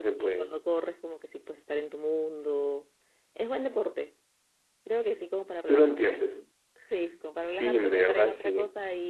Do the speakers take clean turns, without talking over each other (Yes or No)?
No